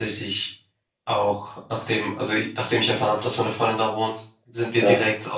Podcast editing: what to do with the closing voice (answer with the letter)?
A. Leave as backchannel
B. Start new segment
A